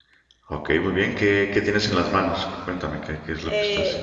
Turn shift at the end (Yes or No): Yes